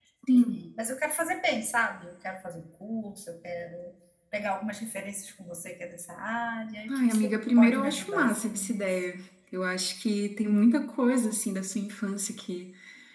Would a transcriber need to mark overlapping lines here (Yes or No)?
Yes